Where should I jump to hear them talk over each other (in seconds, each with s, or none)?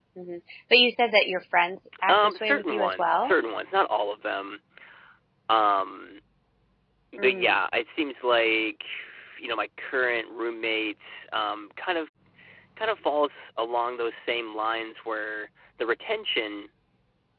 2.1 s